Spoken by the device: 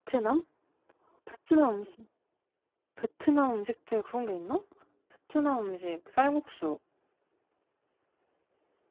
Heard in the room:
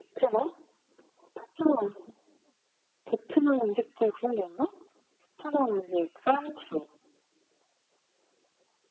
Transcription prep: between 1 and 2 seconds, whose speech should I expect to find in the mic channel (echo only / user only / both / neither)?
echo only